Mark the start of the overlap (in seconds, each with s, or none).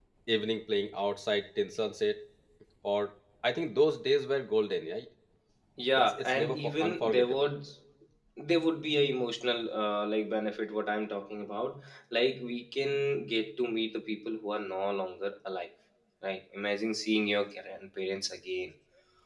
6.2 s